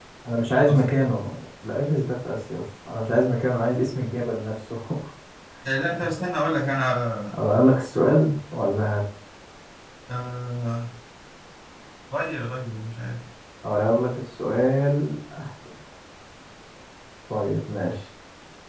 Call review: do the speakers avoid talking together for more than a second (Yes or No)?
Yes